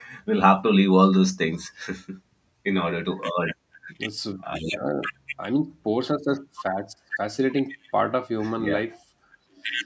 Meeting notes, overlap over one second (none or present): none